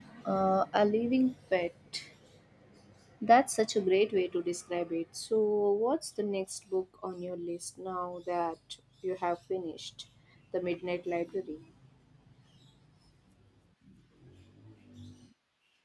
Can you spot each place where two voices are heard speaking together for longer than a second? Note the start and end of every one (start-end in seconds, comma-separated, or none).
none